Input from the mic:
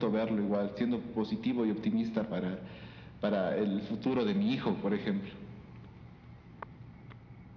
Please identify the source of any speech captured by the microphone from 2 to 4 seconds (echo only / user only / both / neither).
echo only